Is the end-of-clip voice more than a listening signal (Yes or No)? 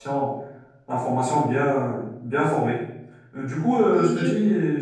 No